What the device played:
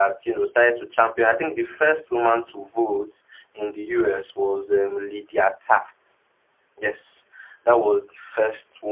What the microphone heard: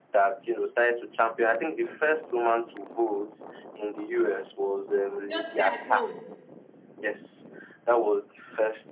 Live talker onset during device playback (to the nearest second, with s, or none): 5 s